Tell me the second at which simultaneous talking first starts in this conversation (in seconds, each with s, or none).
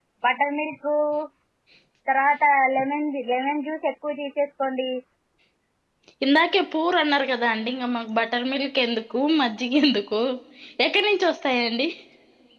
none